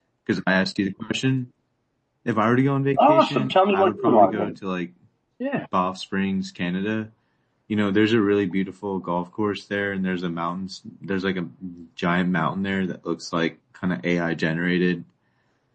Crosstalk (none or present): present